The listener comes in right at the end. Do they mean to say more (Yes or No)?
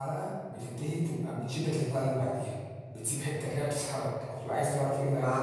Yes